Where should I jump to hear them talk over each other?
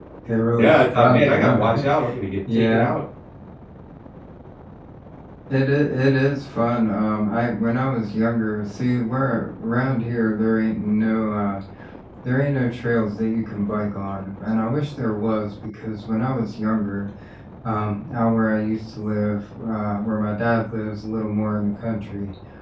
1 s

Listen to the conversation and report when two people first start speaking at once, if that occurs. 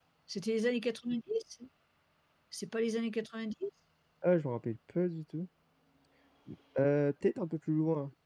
none

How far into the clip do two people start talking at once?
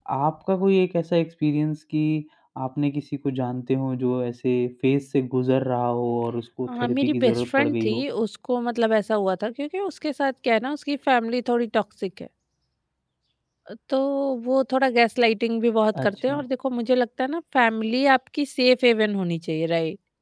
7 s

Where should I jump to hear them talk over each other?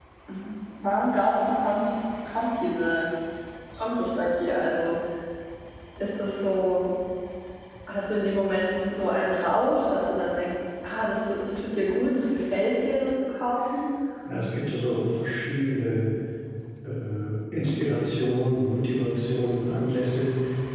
none

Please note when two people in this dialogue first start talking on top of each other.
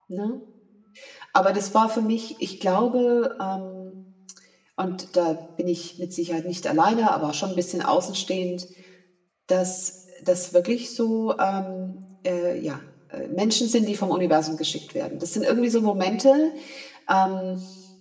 none

